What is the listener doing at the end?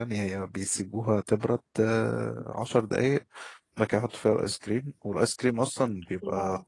listening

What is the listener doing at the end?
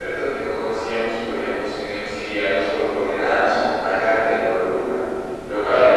listening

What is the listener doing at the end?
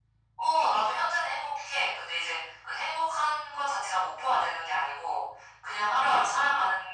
listening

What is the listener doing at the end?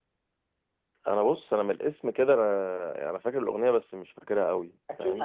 taking over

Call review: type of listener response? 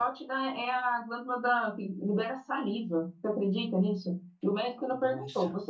listening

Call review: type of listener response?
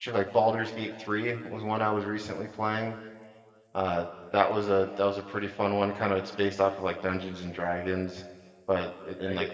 taking over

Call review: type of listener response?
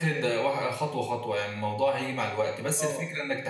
listening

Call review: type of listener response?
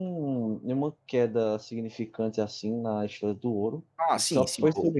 taking over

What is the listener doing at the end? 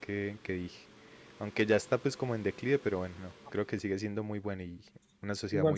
taking over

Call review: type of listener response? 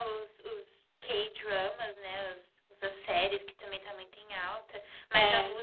listening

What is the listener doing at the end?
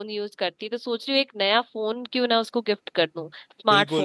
taking over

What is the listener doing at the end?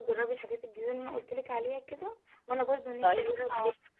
listening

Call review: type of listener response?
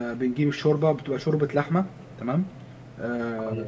taking over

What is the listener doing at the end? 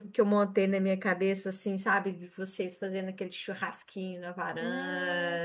taking over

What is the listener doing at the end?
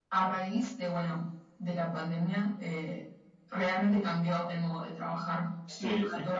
taking over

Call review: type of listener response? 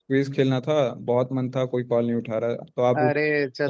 taking over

